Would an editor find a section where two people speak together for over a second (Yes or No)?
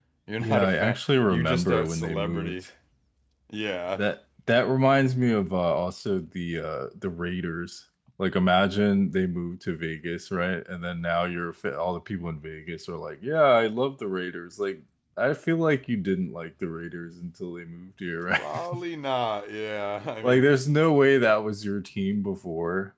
Yes